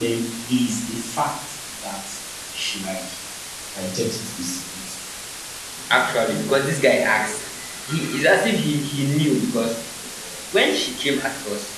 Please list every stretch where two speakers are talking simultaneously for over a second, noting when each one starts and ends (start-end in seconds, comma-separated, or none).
none